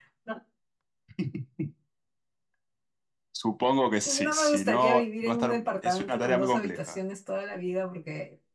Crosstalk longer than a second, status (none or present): present